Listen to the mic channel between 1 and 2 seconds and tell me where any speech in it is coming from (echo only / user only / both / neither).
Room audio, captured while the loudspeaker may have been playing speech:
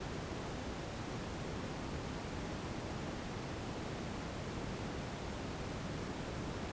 neither